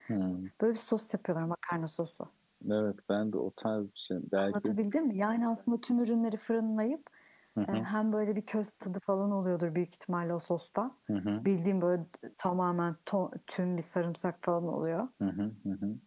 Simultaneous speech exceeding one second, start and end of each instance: none

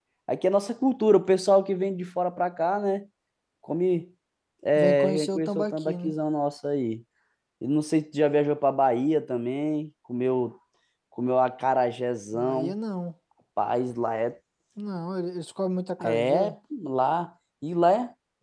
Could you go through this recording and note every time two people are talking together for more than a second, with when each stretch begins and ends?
4.8-6.2

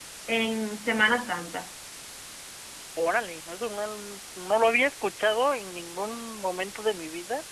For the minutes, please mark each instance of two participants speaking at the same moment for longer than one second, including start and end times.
none

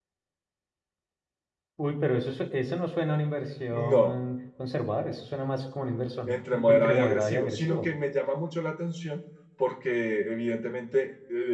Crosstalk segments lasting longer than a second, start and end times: 6.2-7.9

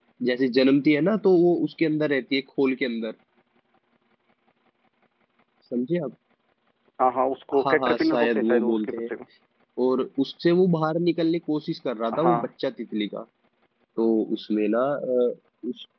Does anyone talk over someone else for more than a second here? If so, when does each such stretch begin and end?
7.6-9.1

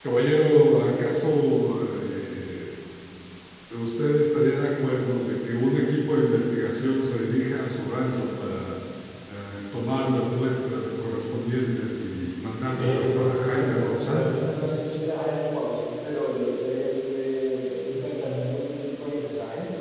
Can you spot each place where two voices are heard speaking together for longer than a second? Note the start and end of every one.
12.8-14.3

